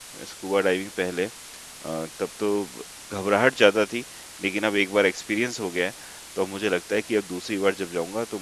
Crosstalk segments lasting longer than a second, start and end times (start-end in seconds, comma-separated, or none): none